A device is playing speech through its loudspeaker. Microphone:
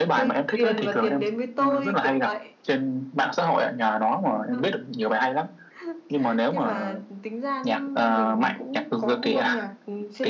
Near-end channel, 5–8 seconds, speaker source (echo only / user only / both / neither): echo only